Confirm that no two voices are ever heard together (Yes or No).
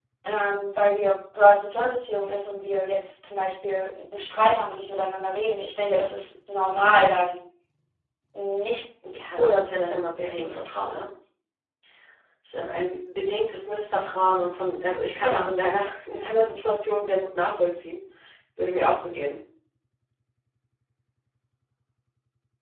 No